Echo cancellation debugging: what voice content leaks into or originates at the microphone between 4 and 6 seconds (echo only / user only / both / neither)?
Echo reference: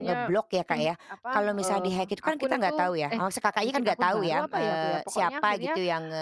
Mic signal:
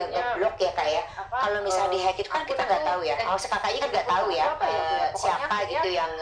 echo only